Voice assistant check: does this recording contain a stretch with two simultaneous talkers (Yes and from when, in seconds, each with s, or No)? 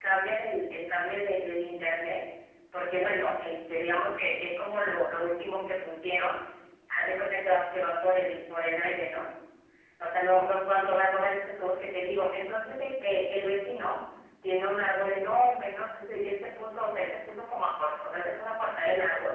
No